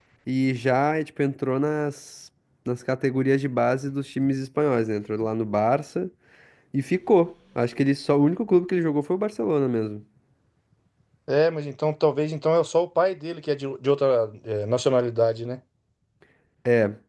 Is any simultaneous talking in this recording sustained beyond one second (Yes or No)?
No